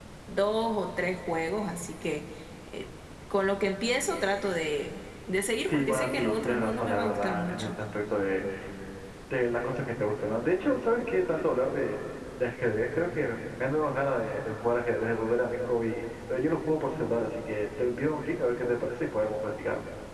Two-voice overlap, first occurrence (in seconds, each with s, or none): 5.7 s